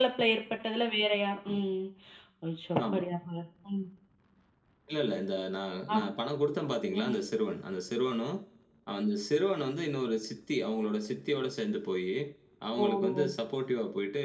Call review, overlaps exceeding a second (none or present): none